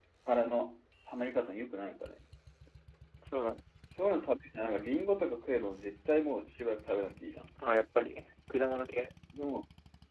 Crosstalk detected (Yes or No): No